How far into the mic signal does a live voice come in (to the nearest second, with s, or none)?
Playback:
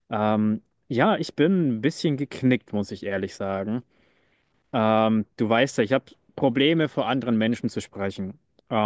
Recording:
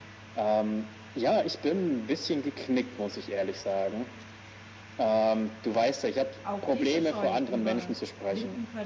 6 s